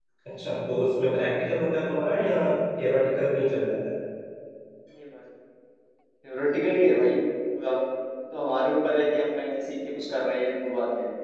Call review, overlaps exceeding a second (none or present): none